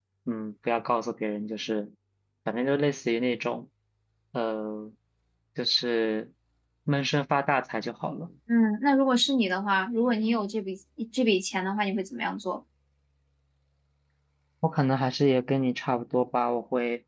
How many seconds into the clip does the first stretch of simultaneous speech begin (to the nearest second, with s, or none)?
none